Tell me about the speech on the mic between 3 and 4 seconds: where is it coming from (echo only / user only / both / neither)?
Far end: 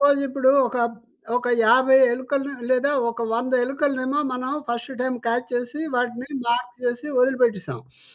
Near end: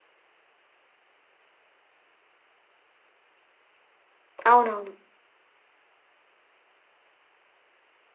neither